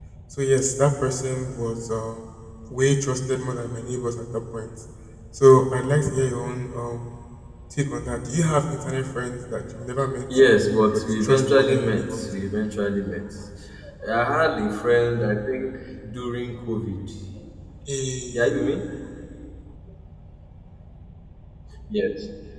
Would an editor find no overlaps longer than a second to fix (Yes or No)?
No